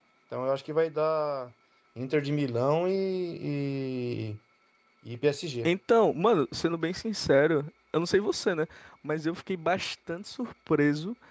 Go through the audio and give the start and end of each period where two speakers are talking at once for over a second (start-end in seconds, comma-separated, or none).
none